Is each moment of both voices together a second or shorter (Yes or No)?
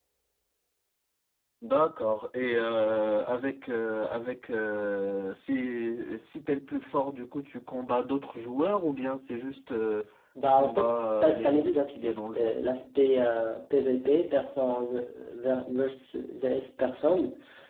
No